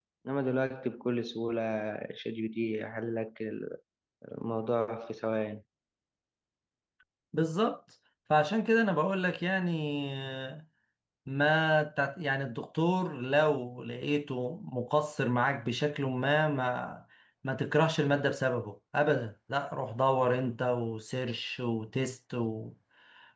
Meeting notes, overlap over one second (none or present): none